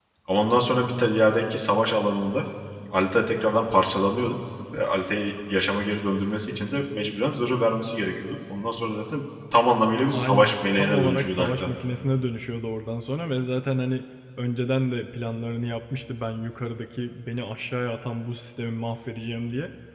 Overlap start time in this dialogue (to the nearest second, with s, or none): 10 s